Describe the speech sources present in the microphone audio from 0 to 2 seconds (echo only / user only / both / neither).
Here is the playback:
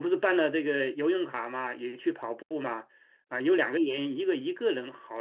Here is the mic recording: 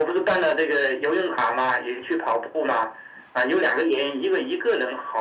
echo only